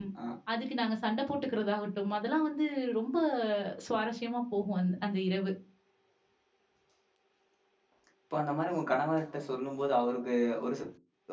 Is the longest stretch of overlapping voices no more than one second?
Yes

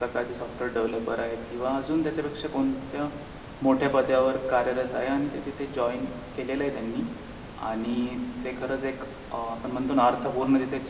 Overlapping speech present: No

